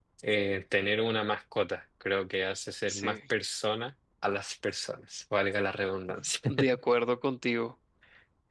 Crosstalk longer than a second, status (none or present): none